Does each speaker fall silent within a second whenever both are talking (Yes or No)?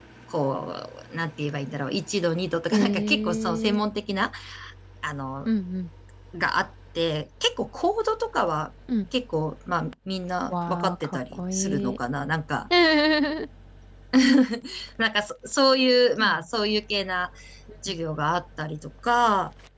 No